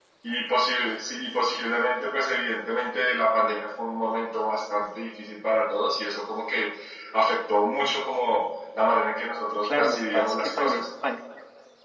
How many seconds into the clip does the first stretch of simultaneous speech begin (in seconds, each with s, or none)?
9.6 s